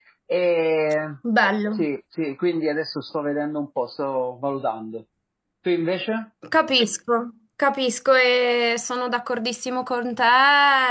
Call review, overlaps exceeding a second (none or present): none